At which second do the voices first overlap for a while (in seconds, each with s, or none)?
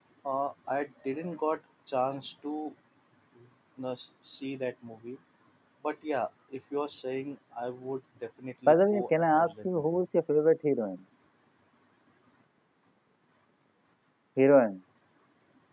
8.7 s